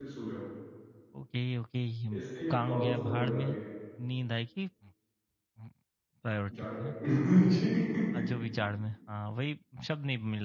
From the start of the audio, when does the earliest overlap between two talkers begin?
2.1 s

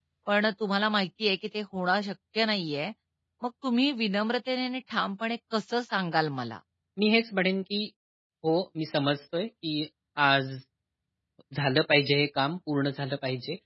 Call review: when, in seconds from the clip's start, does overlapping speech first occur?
none

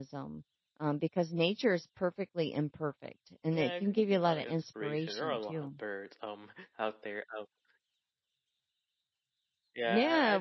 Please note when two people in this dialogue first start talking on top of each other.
3.5 s

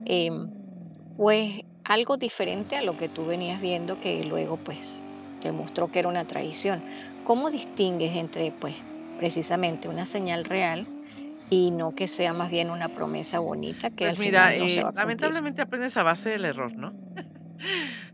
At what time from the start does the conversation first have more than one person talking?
14.0 s

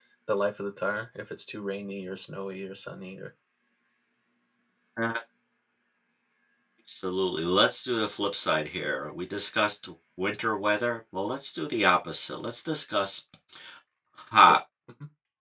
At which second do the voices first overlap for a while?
none

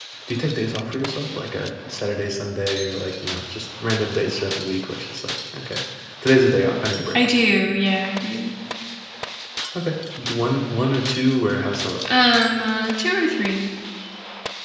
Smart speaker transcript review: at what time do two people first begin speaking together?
none

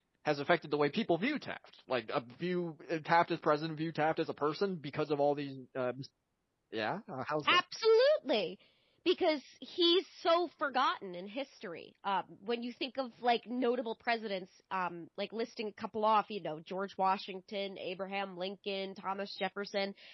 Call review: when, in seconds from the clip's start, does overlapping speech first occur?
none

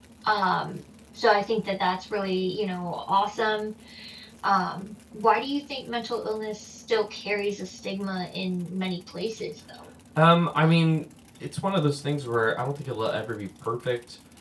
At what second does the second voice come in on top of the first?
none

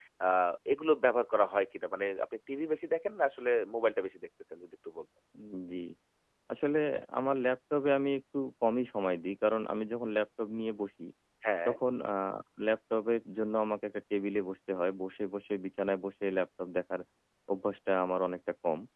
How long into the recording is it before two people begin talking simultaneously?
none

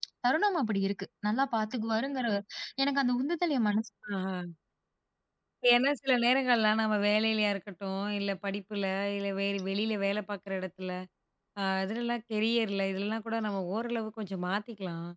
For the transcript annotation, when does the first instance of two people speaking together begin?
none

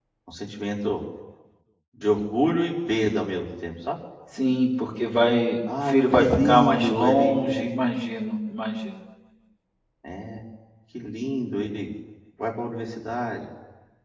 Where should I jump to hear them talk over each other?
5.7 s

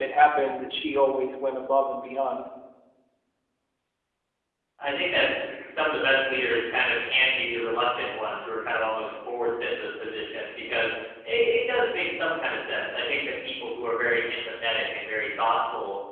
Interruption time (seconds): none

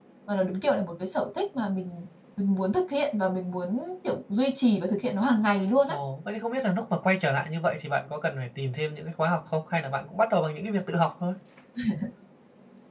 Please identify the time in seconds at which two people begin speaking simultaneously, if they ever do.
none

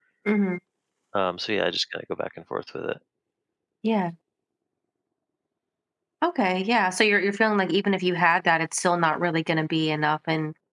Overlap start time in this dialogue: none

